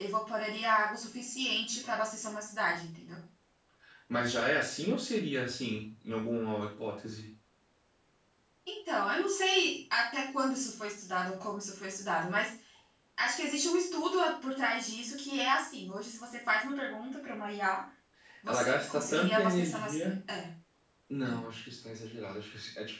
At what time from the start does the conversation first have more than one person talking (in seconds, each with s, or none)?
18.5 s